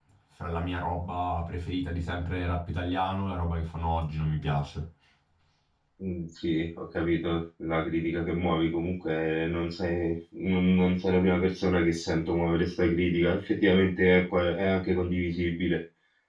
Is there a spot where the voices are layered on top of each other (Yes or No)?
No